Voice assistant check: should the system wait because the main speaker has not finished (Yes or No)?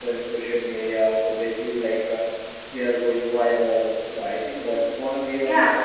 No